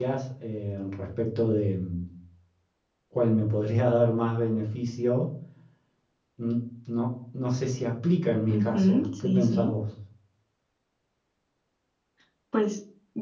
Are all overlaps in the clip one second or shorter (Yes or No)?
No